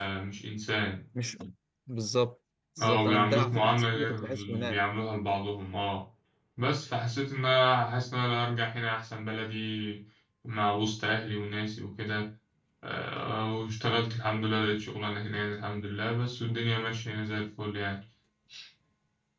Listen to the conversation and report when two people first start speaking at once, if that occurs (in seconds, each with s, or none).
2.8 s